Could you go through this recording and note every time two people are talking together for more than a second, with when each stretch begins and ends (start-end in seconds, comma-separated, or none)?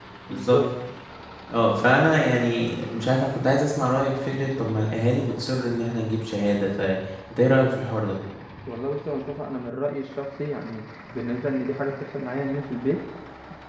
none